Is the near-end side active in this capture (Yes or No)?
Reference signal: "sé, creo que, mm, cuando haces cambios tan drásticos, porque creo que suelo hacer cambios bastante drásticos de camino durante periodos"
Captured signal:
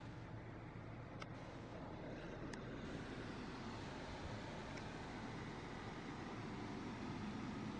No